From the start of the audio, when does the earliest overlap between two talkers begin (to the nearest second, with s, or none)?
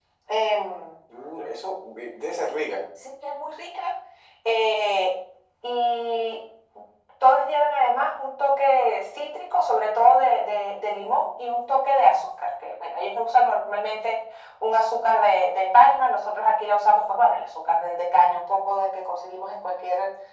none